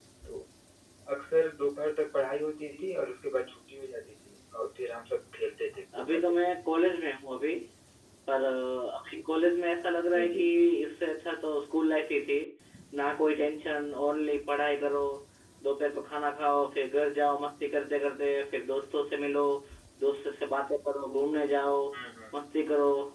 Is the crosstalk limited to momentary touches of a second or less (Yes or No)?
Yes